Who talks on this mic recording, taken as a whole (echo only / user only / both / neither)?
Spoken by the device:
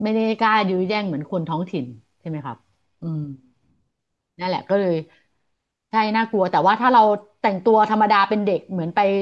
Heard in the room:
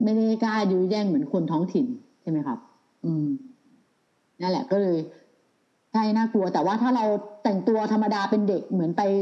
echo only